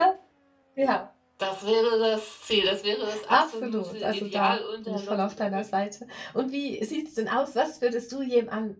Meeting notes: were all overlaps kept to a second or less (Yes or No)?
No